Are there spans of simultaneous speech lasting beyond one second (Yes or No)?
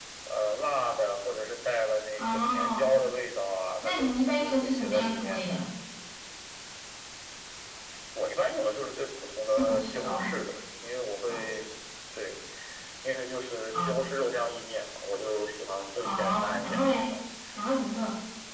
Yes